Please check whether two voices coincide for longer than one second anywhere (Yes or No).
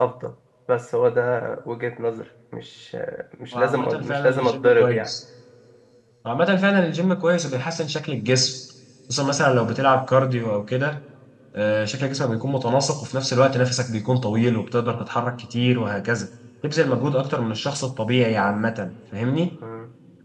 Yes